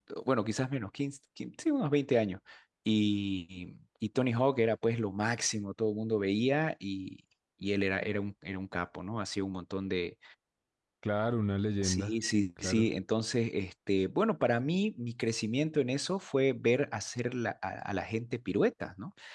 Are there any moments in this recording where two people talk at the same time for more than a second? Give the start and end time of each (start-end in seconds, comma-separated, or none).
none